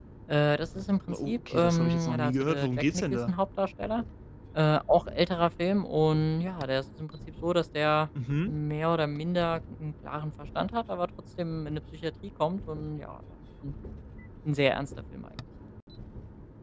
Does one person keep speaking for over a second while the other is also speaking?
Yes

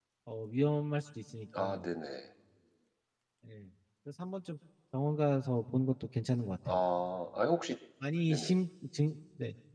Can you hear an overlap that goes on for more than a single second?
No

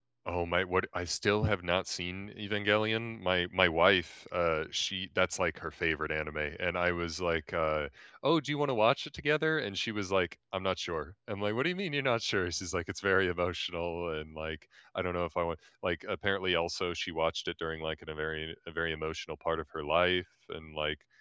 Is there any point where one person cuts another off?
No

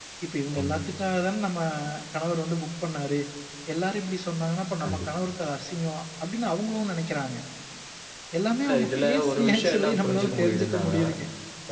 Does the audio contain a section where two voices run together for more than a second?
Yes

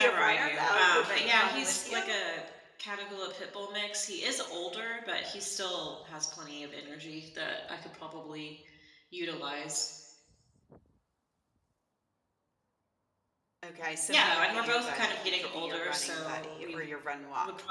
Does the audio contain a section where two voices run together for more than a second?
Yes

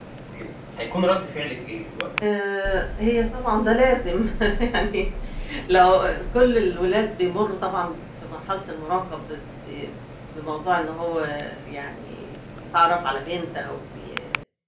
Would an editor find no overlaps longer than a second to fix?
Yes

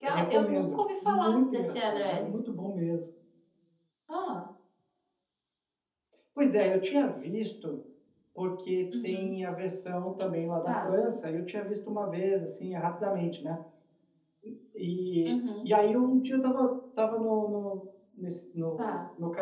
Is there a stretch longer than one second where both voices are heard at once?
Yes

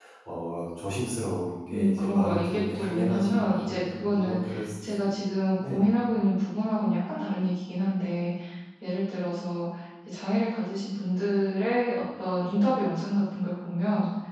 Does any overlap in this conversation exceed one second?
Yes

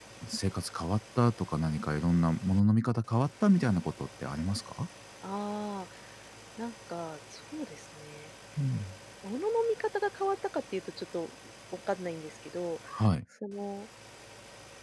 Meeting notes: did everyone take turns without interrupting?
Yes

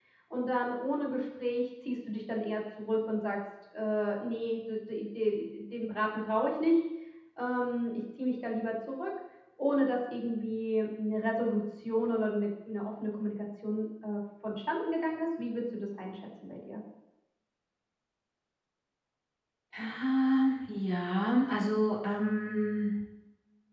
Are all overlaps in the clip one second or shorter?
Yes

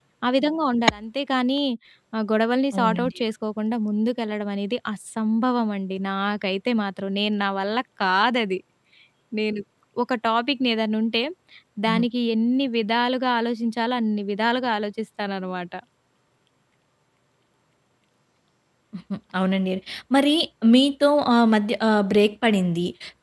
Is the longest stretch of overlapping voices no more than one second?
Yes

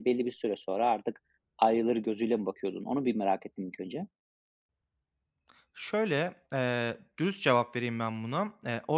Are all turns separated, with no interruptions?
Yes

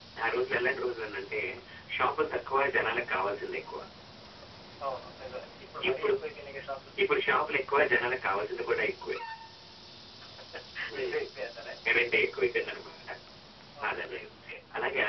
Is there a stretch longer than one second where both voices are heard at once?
No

